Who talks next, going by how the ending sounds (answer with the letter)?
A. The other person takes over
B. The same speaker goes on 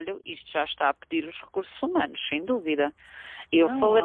A